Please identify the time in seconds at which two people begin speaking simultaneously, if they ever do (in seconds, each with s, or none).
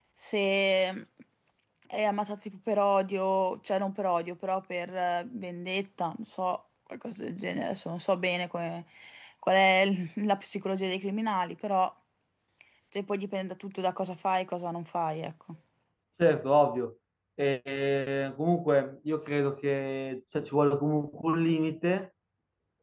none